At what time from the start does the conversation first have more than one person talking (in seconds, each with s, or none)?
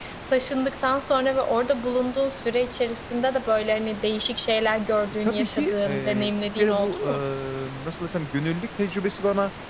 5.2 s